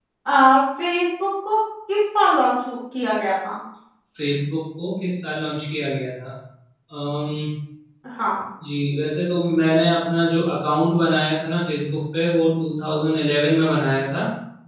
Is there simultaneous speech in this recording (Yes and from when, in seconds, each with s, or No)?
No